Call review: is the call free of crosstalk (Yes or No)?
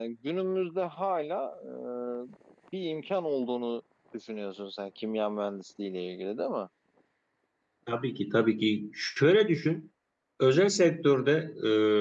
Yes